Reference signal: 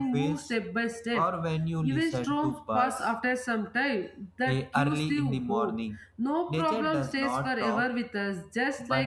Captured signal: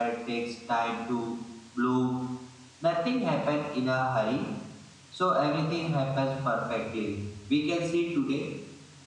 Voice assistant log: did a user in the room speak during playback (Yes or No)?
Yes